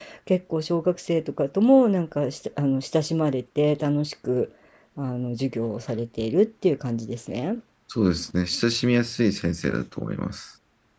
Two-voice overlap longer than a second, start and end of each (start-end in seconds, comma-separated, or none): none